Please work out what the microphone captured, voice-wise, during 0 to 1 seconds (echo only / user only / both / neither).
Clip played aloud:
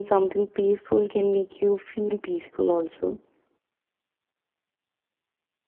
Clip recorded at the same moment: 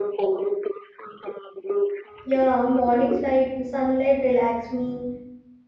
echo only